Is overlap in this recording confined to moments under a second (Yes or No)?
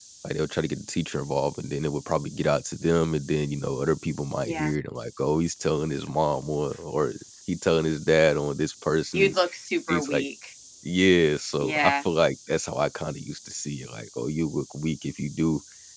Yes